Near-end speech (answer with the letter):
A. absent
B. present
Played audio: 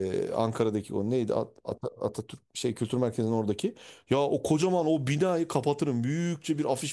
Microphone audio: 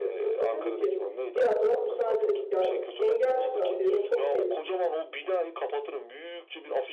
B